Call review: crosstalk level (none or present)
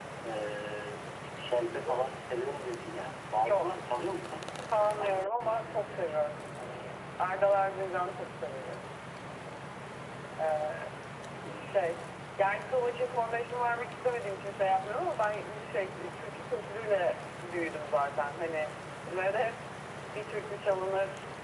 present